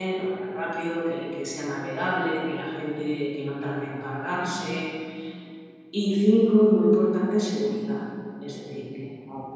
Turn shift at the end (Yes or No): No